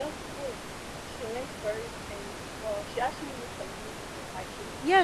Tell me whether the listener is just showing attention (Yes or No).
No